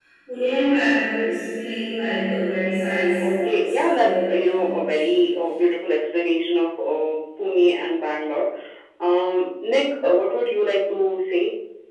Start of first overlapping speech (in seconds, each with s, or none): 3.2 s